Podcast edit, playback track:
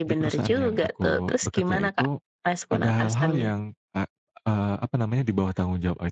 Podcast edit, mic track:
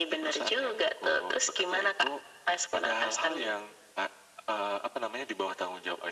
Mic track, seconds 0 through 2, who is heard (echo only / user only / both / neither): echo only